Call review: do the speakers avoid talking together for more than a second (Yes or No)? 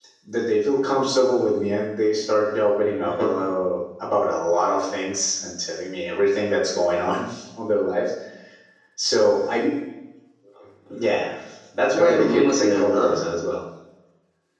No